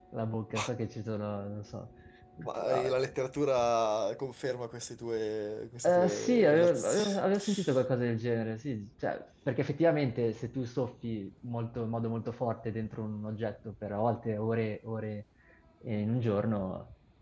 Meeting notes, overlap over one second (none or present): present